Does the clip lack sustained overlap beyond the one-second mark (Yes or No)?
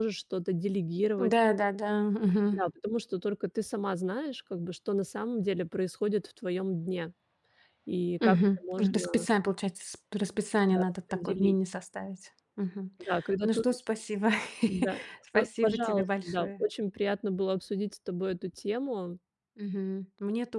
No